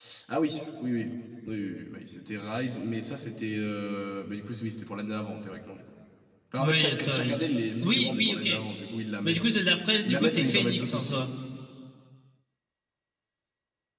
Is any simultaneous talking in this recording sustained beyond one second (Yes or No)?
Yes